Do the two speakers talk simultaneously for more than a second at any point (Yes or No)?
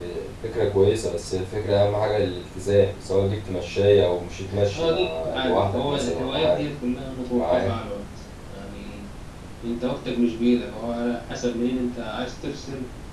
Yes